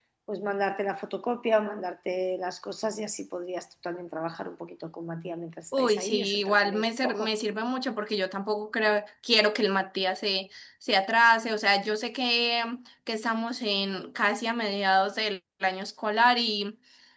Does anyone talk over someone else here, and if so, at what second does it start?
5.7 s

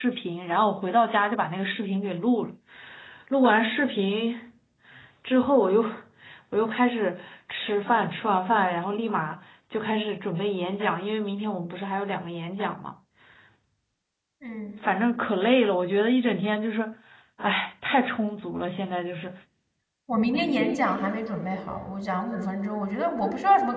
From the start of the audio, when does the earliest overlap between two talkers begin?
none

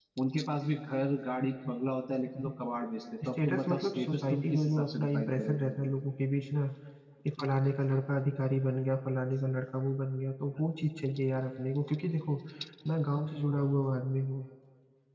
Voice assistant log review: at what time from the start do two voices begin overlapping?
3.4 s

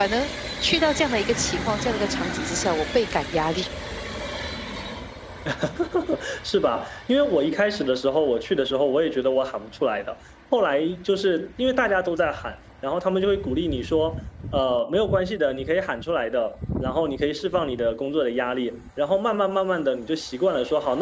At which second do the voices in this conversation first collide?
none

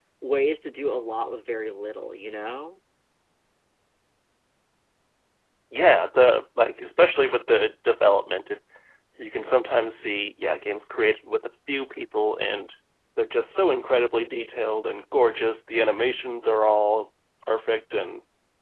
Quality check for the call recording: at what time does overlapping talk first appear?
none

